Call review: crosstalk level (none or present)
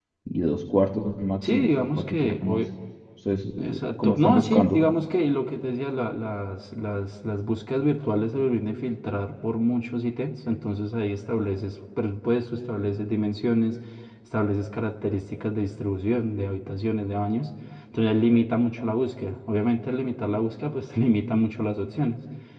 present